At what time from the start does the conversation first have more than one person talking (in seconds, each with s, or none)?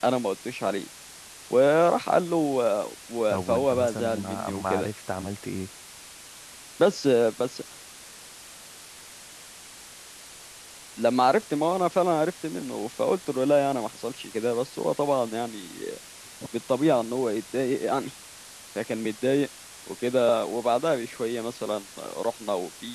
3.3 s